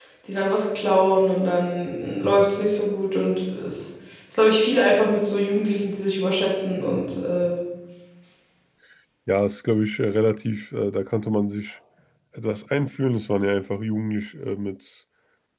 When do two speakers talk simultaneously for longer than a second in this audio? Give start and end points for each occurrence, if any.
none

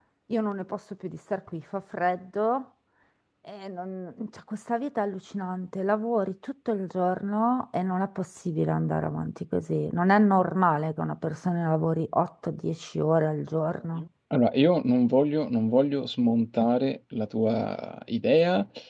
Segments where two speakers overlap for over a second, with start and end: none

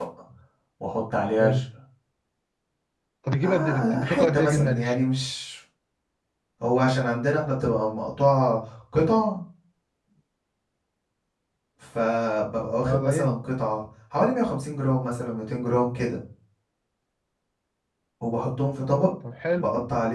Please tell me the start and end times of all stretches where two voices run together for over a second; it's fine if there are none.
3.4-5.0

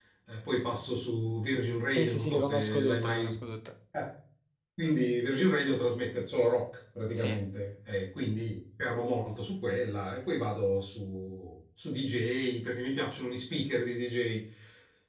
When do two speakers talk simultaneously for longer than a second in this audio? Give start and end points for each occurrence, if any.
1.9-3.3

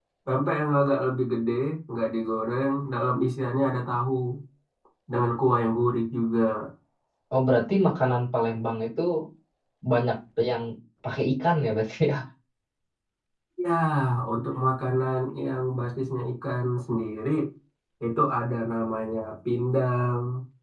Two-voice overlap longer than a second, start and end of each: none

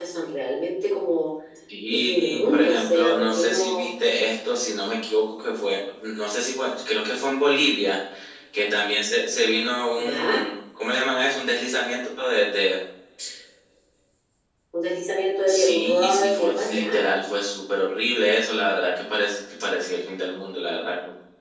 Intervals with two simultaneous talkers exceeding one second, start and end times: 1.9-3.9, 15.5-17.0

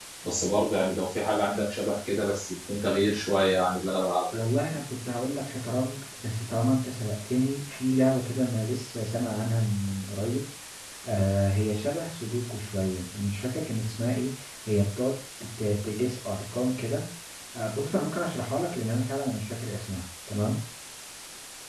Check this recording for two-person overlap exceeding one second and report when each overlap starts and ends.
none

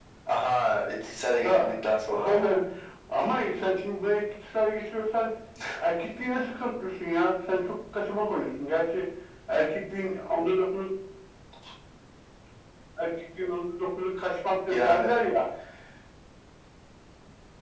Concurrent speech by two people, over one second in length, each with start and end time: none

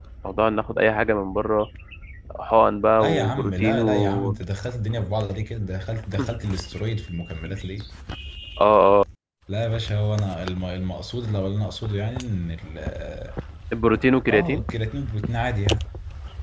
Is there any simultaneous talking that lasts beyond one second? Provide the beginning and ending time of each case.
3.0-4.3

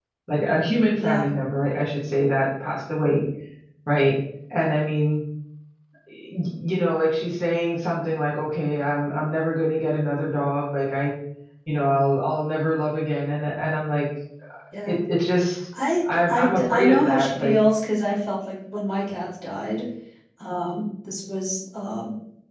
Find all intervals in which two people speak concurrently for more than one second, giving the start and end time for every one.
16.3-17.6

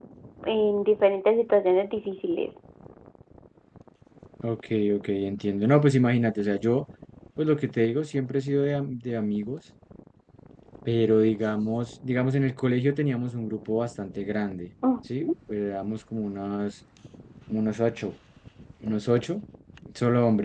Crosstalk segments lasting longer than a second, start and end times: none

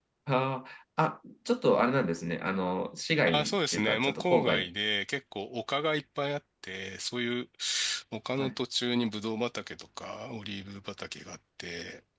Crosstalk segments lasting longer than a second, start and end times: 3.3-4.7

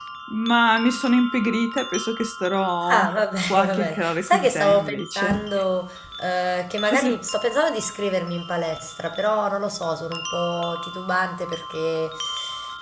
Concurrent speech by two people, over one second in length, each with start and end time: 3.5-5.4

